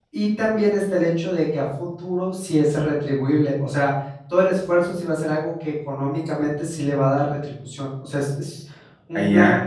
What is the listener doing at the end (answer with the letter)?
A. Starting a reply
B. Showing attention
A